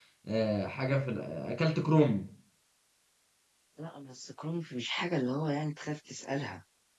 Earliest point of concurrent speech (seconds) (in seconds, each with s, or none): none